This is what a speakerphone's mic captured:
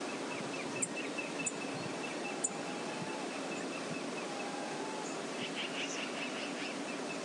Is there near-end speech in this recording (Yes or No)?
No